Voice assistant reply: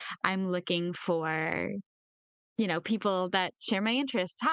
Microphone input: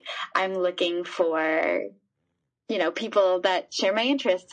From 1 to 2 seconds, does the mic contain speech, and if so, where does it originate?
echo only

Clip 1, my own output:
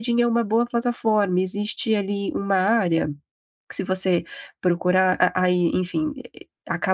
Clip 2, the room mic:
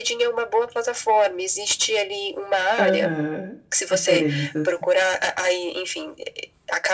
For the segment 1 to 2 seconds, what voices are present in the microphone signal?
echo only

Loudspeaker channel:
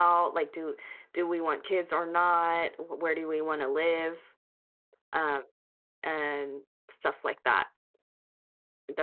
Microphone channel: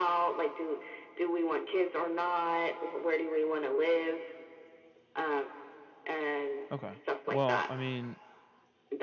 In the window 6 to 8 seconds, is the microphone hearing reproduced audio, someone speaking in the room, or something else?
both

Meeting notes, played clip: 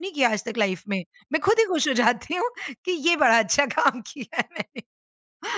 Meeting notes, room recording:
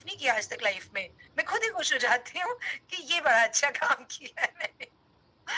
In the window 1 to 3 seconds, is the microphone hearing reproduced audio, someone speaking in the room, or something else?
echo only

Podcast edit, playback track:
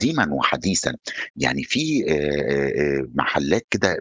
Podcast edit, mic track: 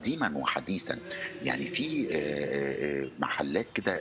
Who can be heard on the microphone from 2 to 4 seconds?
both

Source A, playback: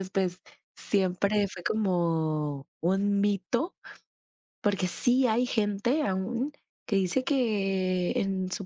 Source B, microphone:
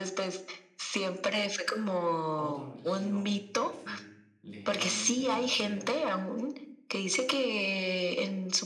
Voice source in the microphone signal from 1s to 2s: echo only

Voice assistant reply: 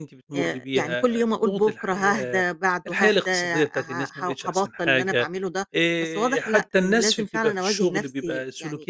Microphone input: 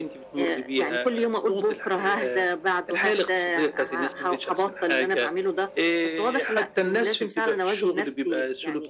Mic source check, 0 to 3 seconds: echo only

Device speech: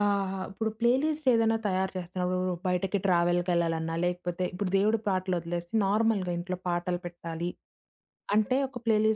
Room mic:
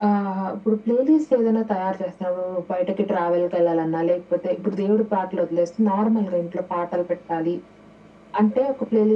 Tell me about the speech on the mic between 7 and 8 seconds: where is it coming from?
echo only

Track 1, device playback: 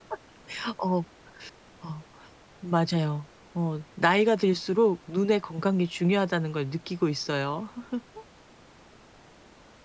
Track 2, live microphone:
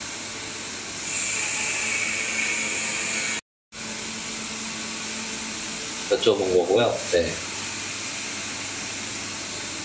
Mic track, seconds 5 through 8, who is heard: user only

